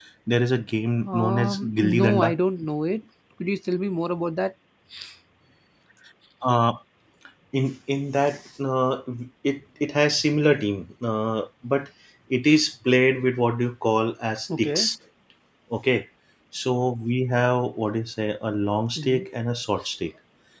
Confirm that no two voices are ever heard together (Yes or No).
No